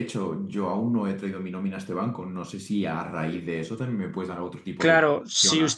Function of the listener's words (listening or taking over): taking over